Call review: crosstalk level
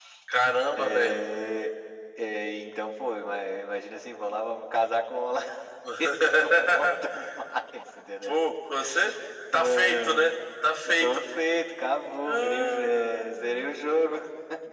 present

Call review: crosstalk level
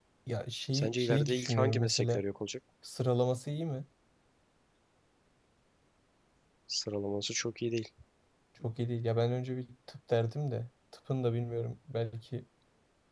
present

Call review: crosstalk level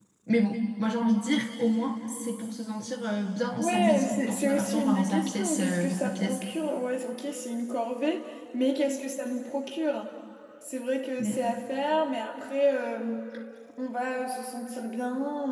present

